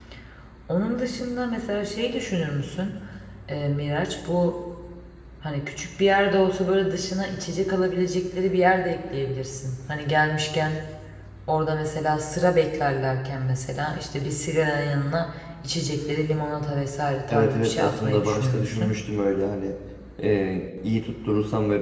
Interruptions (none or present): present